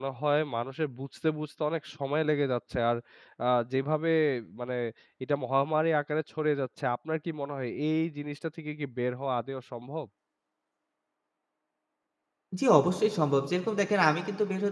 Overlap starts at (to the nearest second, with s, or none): none